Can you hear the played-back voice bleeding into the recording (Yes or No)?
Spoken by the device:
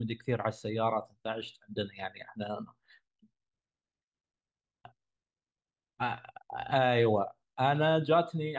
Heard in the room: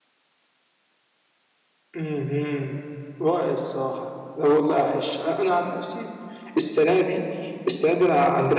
No